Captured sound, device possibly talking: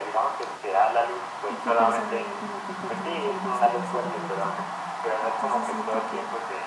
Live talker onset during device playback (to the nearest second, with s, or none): 1 s